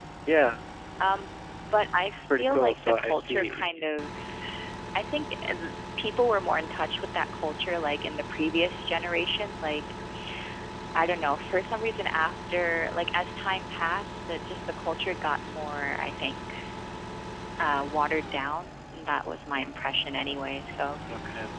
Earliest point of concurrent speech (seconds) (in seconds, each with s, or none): 2.3 s